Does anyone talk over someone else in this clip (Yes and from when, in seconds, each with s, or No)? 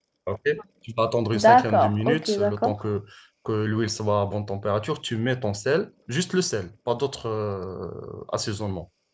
Yes, from 1.3 s